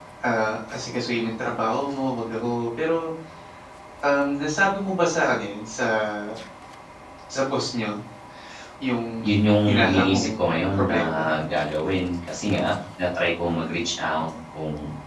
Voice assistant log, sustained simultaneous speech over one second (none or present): present